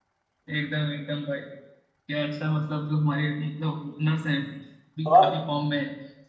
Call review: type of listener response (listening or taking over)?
listening